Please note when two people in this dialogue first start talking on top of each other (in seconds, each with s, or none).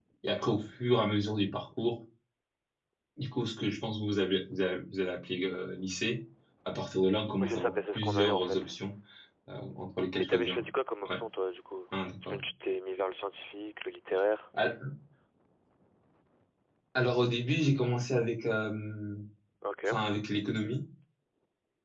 7.4 s